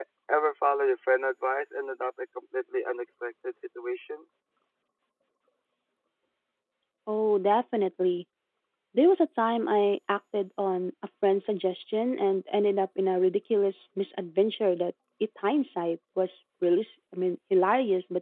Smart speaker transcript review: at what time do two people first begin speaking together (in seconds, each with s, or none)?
none